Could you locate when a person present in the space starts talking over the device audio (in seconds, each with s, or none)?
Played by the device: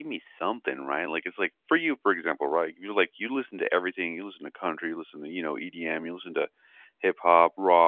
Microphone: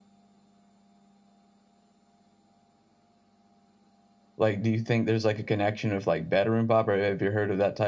4.4 s